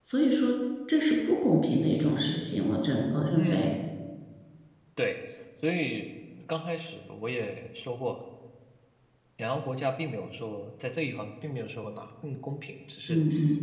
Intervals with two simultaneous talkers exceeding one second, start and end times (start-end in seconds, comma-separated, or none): none